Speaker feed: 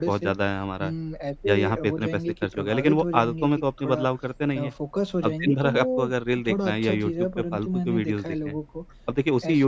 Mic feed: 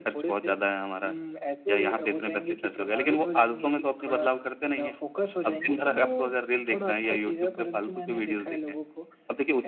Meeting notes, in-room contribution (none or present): none